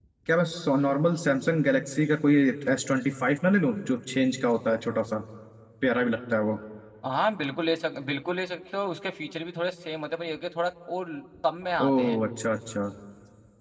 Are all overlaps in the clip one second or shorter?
Yes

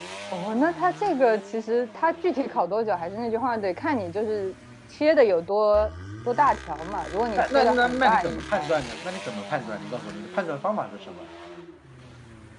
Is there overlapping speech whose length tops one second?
Yes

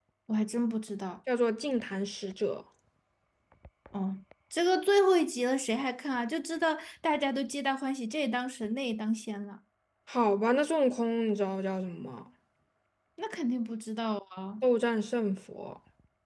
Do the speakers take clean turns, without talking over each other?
Yes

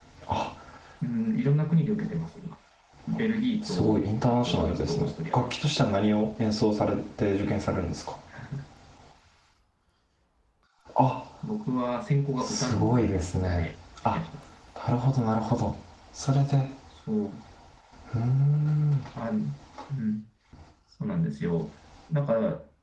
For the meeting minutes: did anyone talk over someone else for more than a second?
Yes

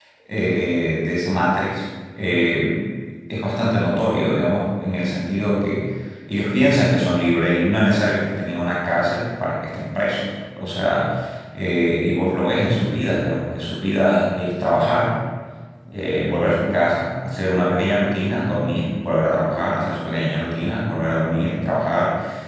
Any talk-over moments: No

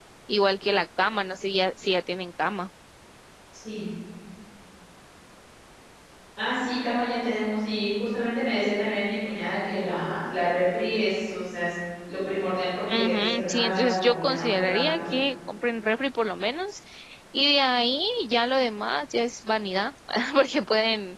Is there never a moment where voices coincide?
No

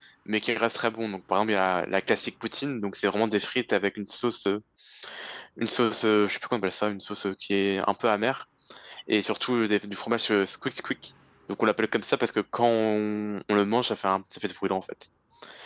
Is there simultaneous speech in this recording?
No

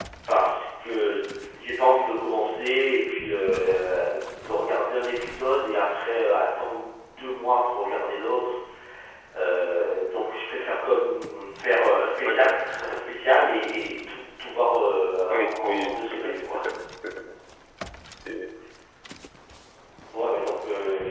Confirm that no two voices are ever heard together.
No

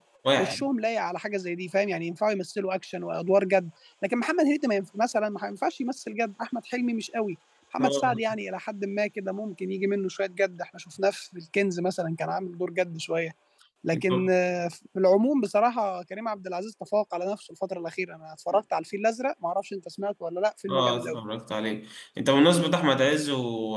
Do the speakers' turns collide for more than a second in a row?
No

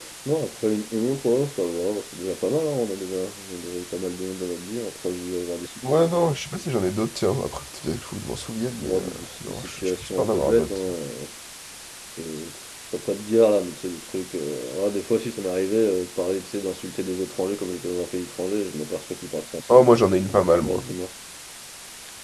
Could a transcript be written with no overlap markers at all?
No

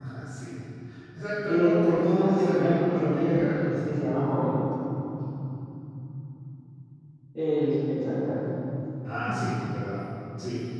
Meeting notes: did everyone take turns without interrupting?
No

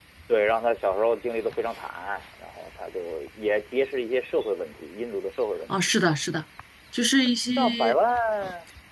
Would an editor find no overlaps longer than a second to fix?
Yes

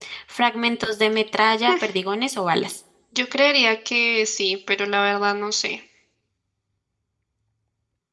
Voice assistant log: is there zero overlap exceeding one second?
Yes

